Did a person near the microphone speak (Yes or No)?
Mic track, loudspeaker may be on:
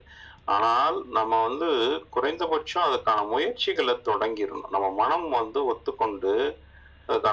No